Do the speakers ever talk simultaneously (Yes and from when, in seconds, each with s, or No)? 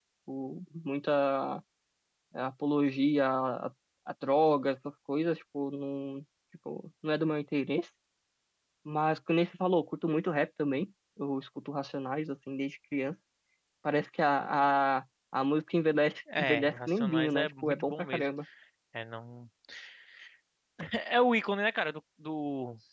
Yes, from 16.3 s